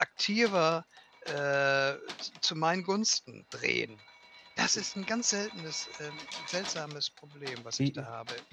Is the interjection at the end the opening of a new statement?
Yes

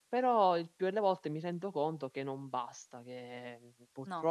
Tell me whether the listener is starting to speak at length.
No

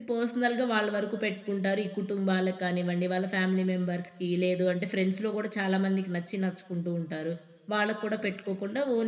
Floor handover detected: No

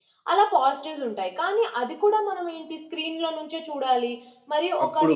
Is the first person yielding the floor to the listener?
No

